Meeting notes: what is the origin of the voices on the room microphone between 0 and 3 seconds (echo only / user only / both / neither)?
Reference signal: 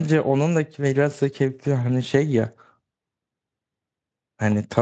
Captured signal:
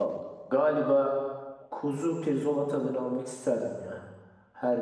user only